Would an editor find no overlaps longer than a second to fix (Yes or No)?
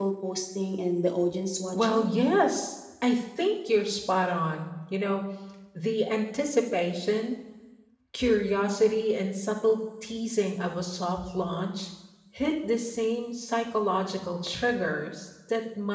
Yes